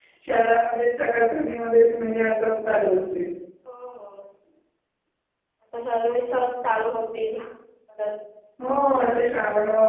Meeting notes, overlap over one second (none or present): none